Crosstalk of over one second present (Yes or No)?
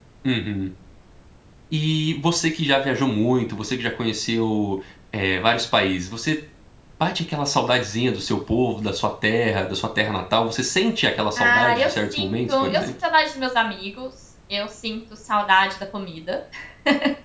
Yes